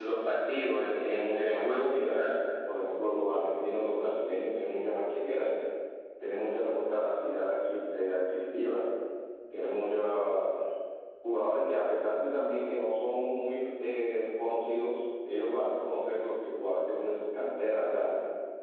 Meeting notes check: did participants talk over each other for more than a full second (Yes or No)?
Yes